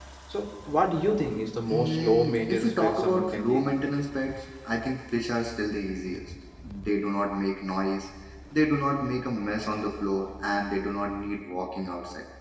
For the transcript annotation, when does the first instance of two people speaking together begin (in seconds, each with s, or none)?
1.7 s